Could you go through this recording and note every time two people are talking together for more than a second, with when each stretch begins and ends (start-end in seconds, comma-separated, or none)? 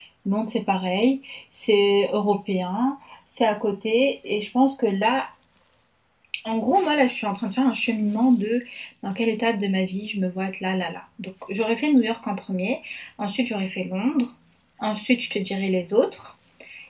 none